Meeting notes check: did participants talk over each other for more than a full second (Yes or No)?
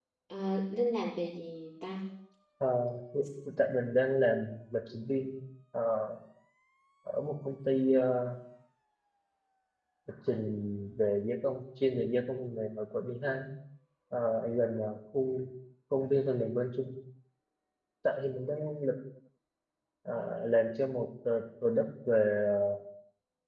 No